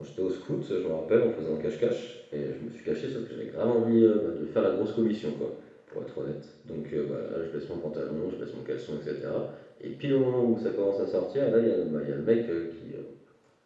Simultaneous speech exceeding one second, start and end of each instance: none

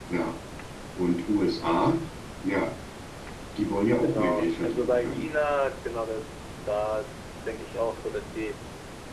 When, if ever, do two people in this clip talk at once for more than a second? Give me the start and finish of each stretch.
4.0-5.2

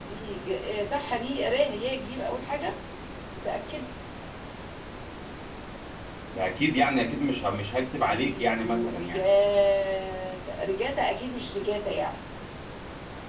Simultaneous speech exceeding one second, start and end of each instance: 8.0-9.2

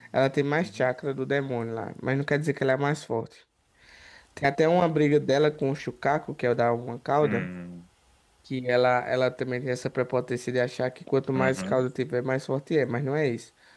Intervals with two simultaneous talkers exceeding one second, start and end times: none

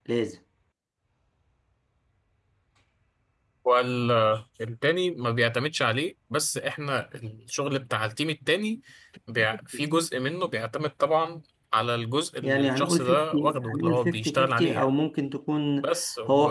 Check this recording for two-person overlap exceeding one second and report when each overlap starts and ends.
12.4-14.9

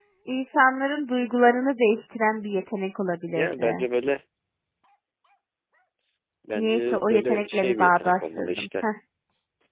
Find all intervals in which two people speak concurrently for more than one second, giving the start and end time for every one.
6.6-8.8

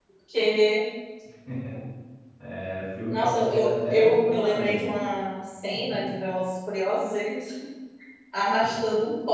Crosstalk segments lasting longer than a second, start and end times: 3.1-4.8

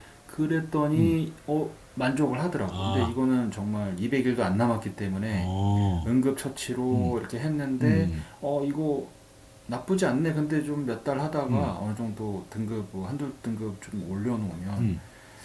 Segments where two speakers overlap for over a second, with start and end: none

